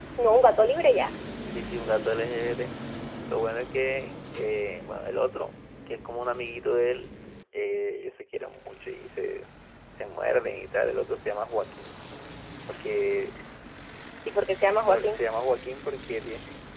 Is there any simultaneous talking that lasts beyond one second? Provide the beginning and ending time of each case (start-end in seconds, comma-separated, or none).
none